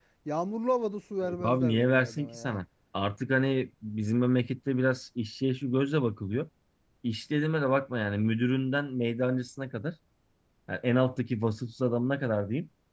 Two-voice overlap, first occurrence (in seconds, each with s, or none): 1.2 s